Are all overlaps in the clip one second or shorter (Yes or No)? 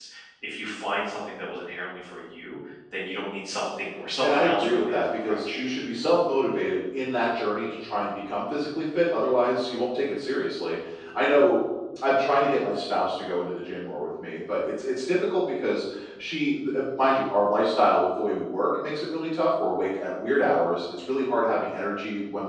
No